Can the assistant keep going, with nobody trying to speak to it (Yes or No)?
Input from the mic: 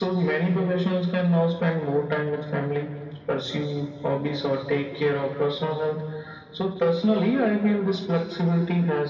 Yes